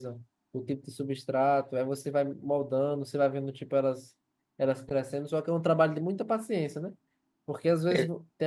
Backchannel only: Yes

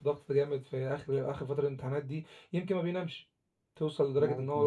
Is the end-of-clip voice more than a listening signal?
No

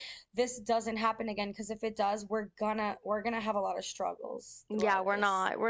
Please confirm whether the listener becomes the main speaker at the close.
Yes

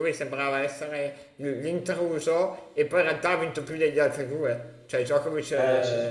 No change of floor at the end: Yes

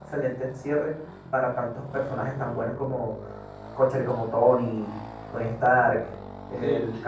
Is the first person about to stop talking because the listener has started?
No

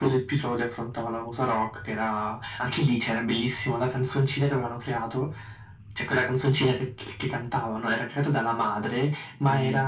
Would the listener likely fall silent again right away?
Yes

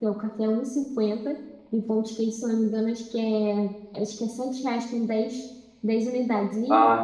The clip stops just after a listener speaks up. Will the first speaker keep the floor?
No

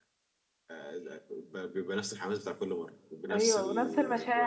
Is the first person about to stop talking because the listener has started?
Yes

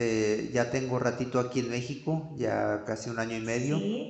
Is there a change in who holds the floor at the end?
No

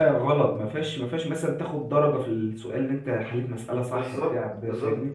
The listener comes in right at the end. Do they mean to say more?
Yes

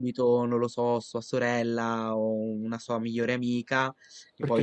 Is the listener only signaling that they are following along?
Yes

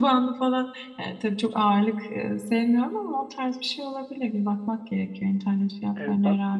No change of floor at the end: No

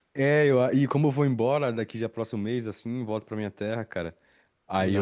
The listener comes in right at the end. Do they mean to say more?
No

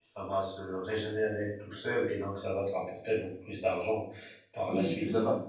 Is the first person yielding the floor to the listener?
Yes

